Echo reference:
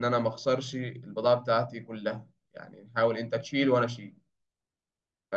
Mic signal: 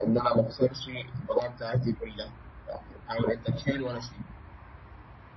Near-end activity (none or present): none